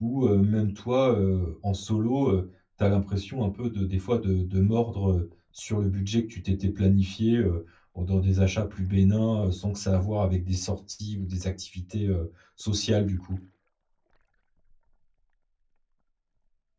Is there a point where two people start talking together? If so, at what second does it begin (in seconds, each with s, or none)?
none